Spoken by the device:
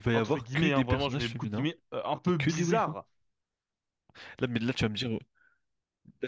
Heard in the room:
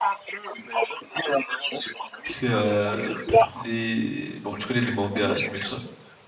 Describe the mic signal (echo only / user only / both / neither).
both